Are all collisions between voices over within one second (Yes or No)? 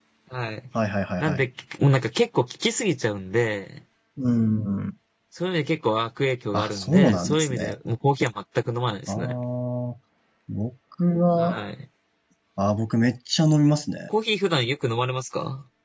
No